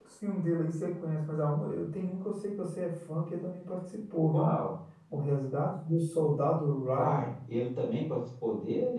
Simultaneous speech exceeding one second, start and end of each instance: none

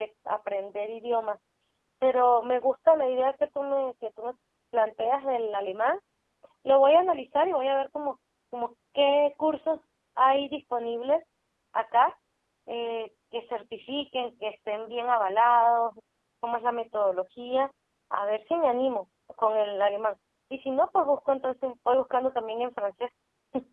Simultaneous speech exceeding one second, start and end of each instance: none

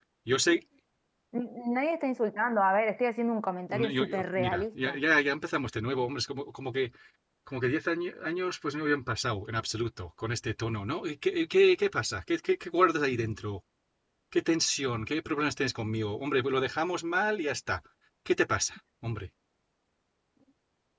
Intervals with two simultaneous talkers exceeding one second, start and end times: 3.7-5.0

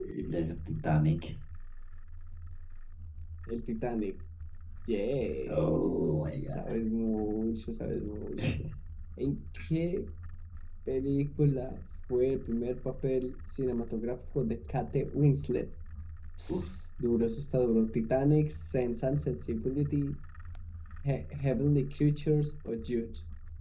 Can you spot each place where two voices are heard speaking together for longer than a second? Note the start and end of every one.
5.5-6.7

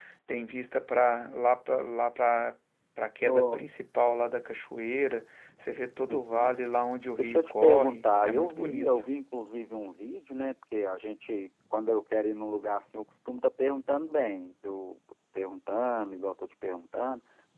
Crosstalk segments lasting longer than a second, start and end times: 7.2-9.0

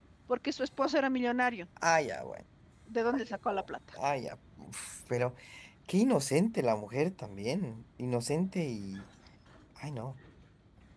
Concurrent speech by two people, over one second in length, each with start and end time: none

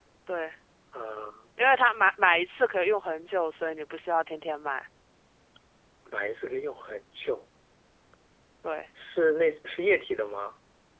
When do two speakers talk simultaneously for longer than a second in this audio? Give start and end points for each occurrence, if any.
none

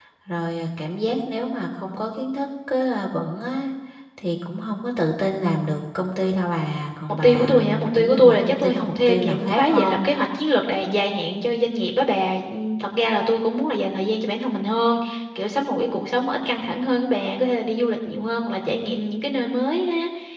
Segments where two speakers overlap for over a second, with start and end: 7.2-10.1

